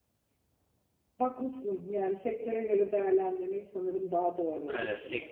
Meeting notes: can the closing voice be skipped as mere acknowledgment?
No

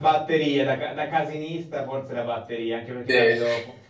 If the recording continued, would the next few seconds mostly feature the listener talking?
No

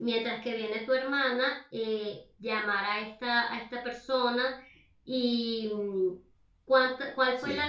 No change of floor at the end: Yes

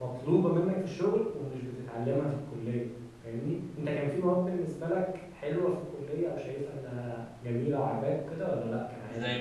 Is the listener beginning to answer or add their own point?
Yes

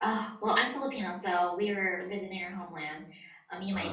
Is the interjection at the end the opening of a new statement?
No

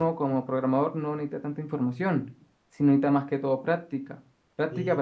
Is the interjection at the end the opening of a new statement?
Yes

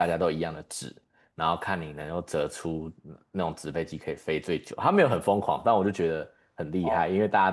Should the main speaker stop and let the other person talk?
No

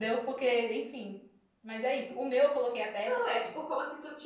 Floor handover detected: Yes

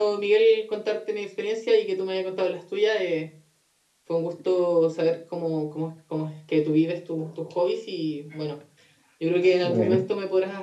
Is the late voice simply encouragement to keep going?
Yes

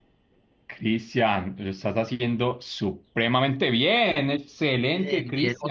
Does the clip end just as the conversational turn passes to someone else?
Yes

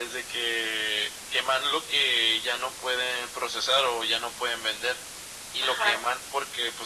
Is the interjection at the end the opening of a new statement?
No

